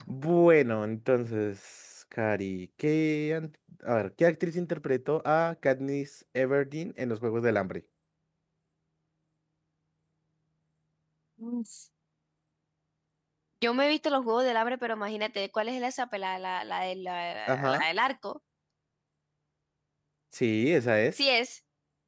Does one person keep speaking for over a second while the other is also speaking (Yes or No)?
No